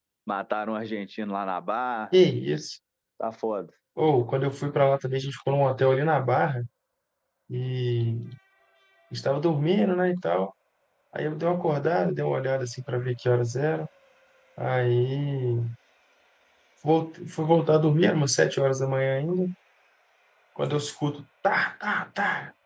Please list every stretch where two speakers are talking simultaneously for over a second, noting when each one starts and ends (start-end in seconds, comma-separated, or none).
none